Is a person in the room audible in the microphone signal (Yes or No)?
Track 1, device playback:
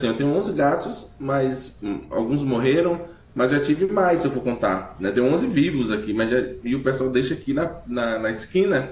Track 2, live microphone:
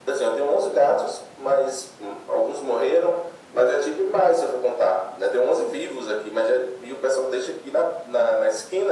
No